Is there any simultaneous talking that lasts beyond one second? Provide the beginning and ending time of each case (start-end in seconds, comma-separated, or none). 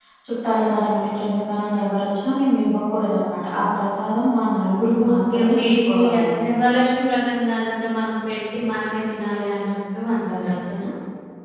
5.1-6.3